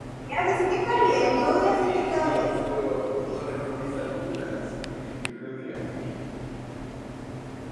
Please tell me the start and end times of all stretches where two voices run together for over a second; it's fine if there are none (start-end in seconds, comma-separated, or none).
0.8-2.6